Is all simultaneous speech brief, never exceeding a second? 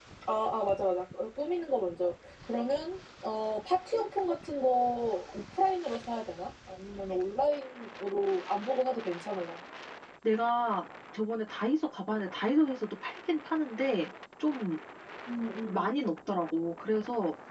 Yes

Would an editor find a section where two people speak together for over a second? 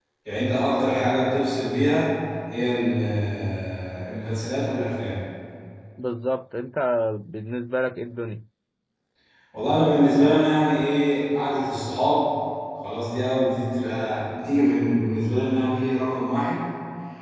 No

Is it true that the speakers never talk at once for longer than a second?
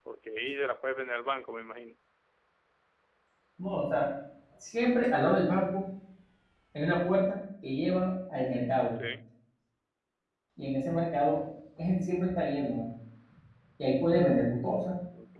Yes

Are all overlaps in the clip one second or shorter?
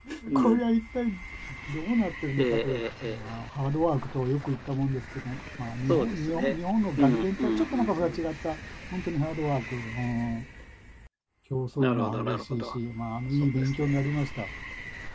No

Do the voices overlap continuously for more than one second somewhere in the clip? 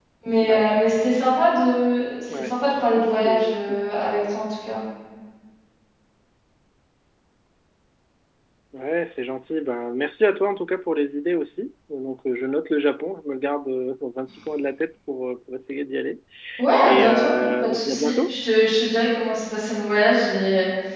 Yes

